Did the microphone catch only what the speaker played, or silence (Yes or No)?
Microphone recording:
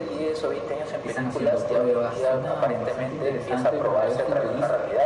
No